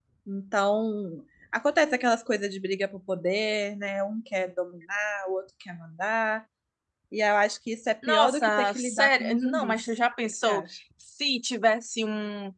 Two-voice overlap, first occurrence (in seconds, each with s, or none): 8.0 s